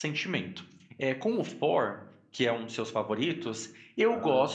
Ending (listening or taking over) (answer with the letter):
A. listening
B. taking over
A